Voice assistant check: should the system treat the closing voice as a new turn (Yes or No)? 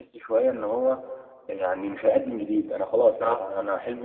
No